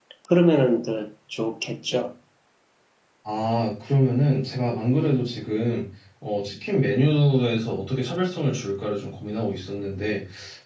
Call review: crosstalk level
none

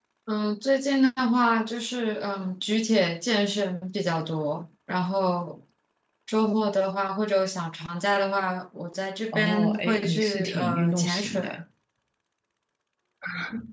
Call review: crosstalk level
present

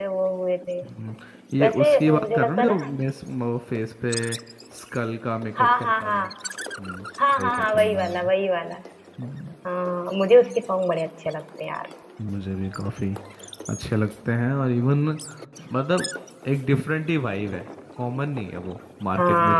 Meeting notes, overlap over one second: present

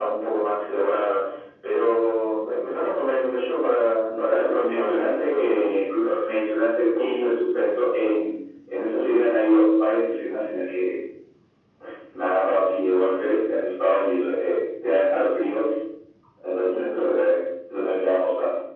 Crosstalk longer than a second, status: present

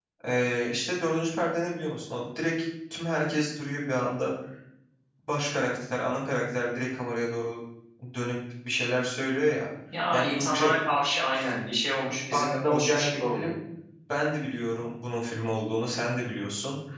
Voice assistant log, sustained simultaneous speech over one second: present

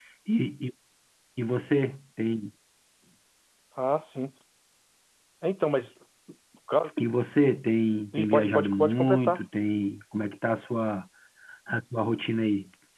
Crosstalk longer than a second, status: present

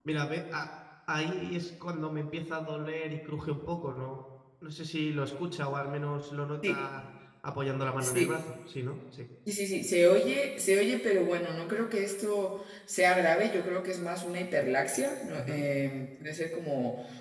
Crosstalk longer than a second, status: none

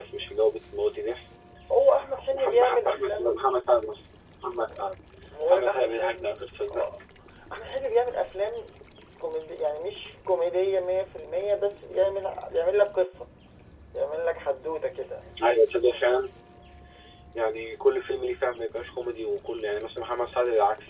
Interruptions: present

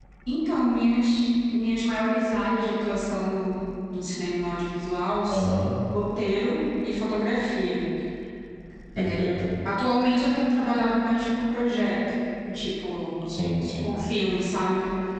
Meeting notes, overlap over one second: none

